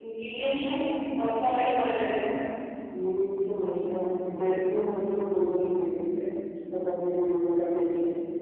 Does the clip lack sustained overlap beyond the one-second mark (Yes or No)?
Yes